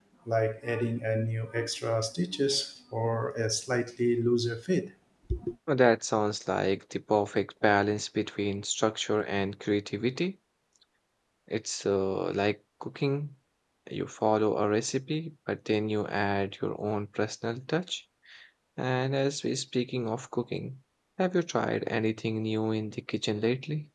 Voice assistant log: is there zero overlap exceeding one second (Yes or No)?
Yes